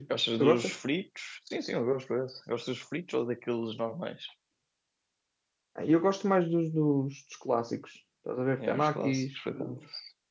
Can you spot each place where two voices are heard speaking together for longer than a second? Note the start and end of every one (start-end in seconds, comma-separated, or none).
8.6-9.8